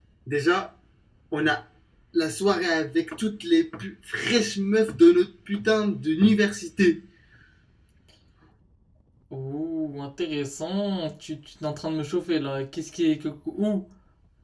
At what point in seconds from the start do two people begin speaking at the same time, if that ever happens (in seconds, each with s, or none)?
none